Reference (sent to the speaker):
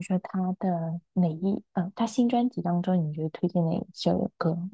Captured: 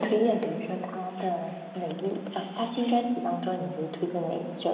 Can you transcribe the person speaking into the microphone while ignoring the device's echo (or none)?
none